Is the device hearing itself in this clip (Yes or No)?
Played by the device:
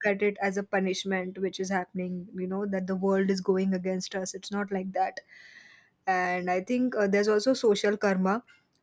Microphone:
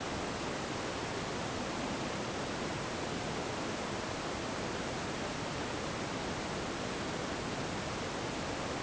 No